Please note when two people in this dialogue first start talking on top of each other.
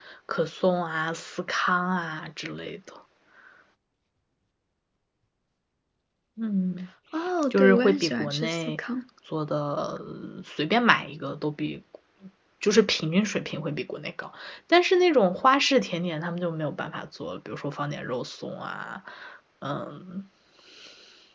7.5 s

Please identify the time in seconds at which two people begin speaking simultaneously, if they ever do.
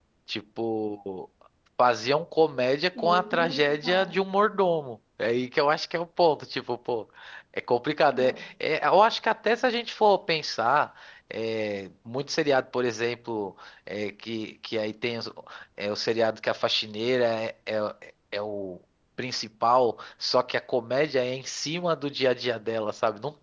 3.0 s

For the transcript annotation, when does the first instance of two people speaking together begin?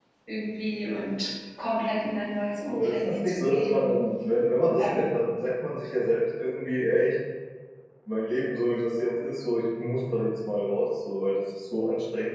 2.7 s

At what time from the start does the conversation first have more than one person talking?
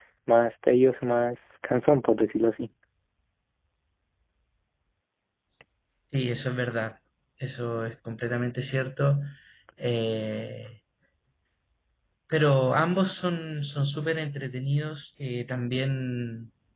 none

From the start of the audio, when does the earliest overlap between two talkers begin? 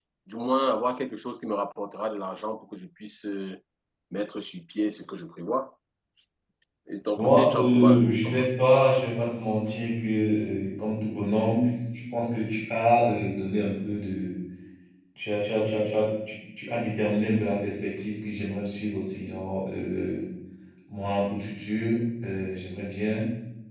7.2 s

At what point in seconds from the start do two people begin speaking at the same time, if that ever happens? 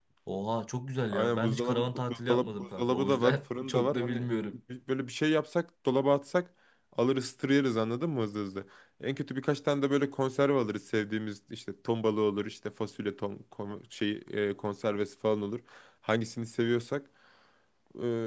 1.1 s

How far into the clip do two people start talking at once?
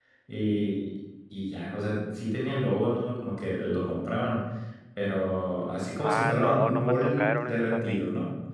6.0 s

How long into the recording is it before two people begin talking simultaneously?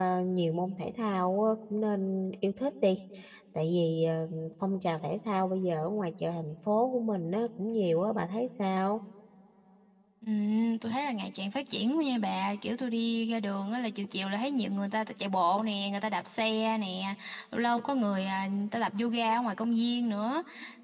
none

